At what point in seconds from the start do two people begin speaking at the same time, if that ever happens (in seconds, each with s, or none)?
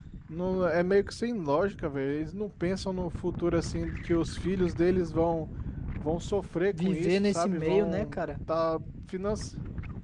6.8 s